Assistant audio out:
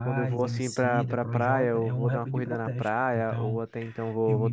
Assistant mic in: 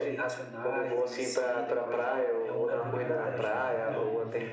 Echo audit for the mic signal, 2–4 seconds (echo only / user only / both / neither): both